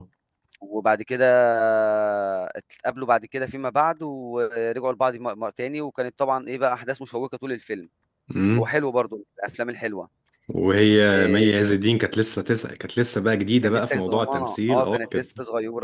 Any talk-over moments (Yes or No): Yes